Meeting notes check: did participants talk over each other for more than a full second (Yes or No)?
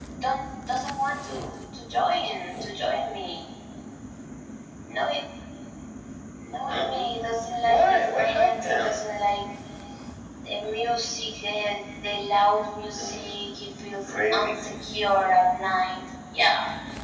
Yes